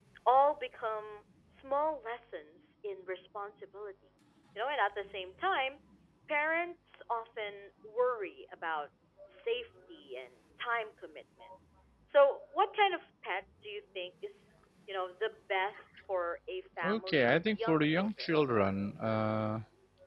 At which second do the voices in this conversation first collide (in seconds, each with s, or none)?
16.8 s